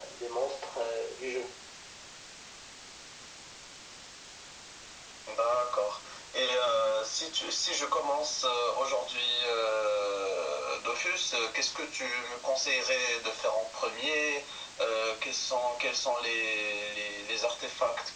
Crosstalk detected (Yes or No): No